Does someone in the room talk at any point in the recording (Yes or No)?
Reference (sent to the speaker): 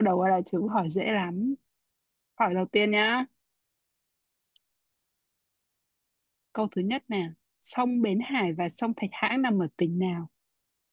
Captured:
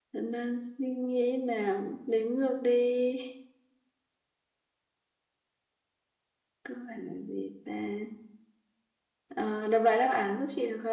Yes